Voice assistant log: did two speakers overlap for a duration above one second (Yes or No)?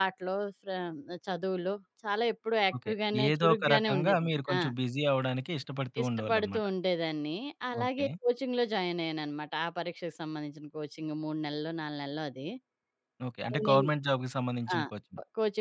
Yes